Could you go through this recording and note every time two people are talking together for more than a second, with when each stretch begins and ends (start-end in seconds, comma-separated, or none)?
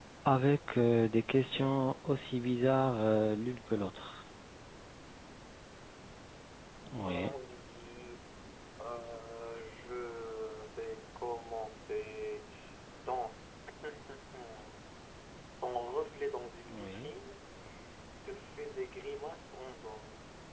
none